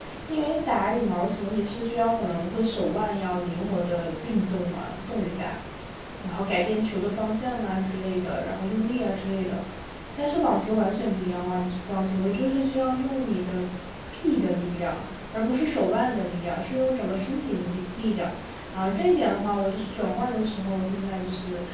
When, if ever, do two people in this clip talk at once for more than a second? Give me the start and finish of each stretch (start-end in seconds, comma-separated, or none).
none